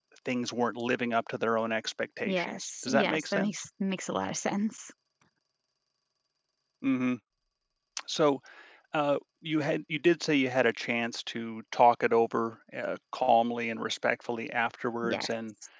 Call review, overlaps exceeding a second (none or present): present